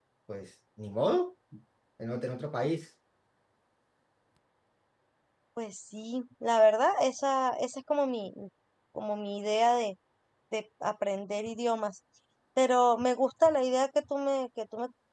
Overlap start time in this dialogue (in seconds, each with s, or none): none